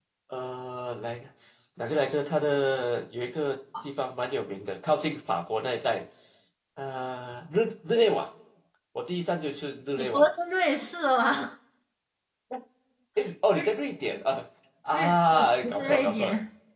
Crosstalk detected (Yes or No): Yes